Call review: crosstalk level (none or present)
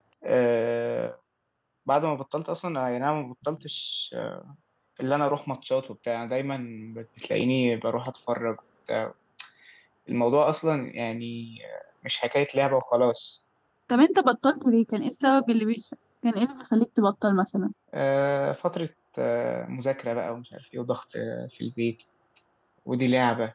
none